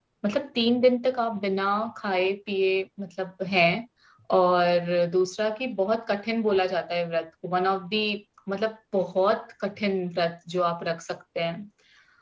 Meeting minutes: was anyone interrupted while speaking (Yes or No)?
No